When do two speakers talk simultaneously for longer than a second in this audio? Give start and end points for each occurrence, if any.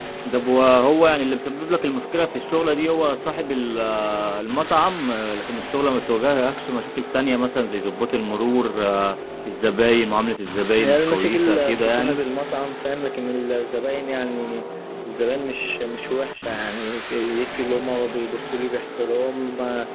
10.8-12.2

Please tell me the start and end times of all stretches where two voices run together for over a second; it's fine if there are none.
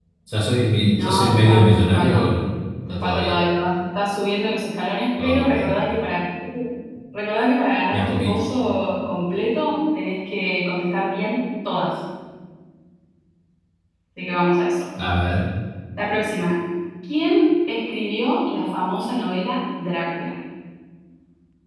1.0-2.3

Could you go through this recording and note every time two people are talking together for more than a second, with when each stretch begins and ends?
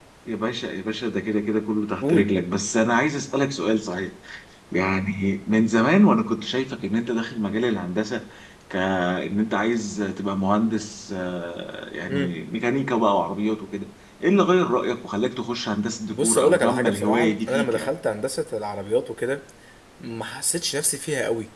16.1-17.9

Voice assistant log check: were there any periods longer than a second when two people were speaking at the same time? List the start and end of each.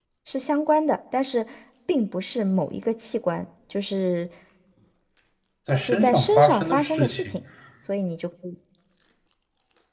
5.8-7.3

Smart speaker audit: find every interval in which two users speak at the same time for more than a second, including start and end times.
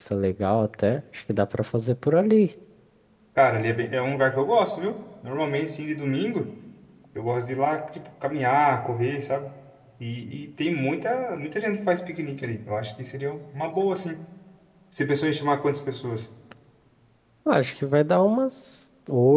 none

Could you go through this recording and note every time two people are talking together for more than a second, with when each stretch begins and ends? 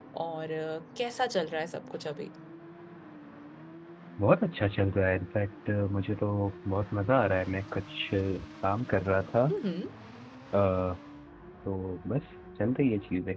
none

